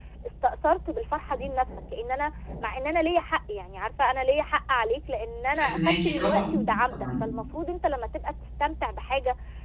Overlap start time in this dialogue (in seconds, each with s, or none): 5.5 s